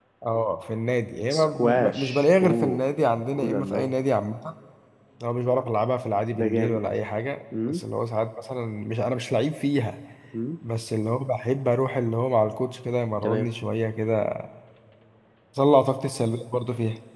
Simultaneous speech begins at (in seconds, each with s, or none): 1.3 s